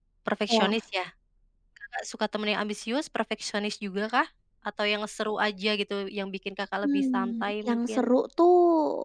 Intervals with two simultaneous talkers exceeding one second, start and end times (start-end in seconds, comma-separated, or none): 6.8-8.1